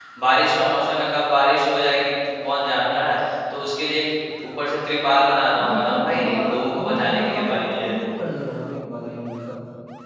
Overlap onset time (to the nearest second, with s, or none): 6 s